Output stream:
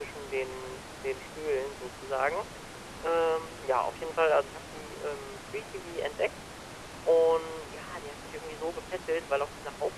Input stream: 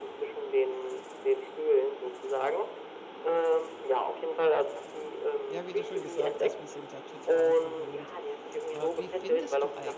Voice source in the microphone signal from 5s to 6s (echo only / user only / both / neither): both